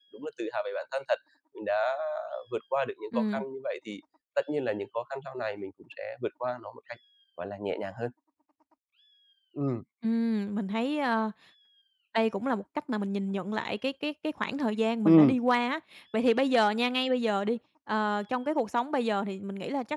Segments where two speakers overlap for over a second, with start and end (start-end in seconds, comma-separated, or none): none